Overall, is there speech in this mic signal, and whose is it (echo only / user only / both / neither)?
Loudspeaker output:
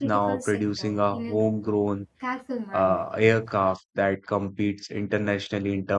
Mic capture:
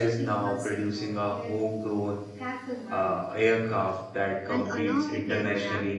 both